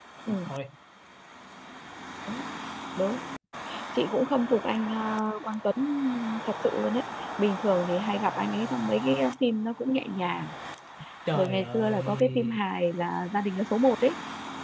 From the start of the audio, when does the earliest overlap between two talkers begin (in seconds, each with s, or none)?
11.3 s